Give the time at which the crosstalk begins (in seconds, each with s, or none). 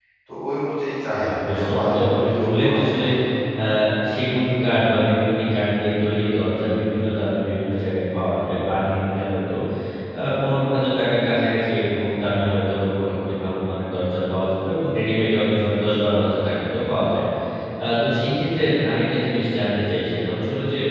1.2 s